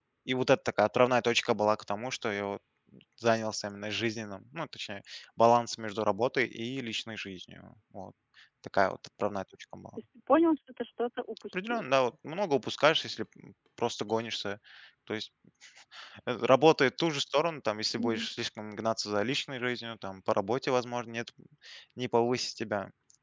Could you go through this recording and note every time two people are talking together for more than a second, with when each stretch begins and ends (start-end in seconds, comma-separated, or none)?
none